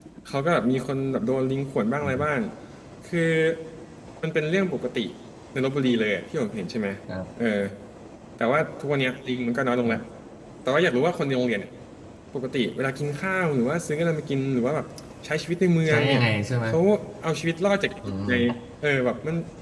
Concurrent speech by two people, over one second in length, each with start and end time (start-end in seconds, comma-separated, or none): none